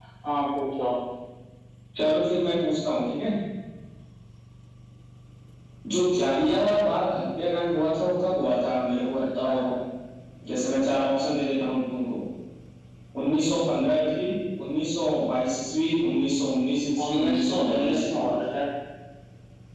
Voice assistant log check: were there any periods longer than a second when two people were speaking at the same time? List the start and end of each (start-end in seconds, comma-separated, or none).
17.0-18.3